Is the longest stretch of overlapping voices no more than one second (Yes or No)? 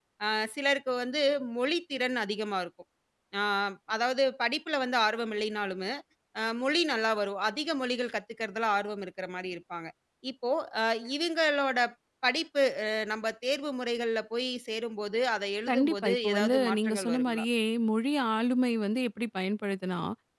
No